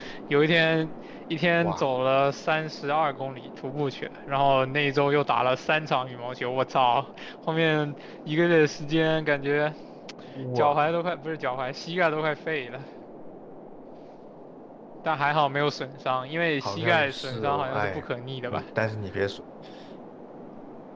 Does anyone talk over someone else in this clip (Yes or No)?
Yes